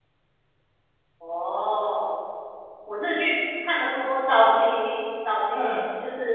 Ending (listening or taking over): listening